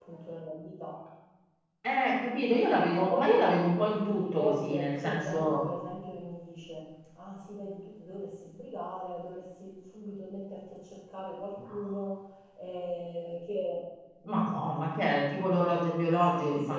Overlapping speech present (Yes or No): Yes